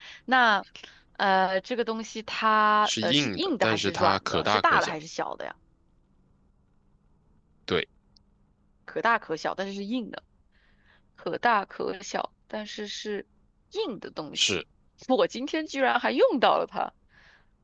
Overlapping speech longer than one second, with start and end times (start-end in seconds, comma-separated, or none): 2.8-5.0